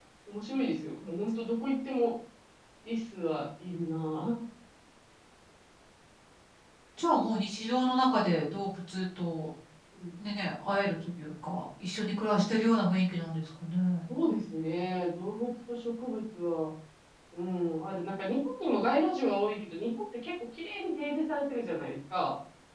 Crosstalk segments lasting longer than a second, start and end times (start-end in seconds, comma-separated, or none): none